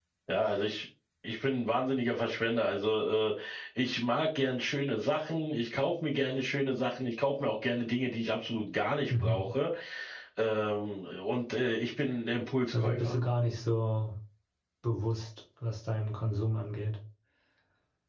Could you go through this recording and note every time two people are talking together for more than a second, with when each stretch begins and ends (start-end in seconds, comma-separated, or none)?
none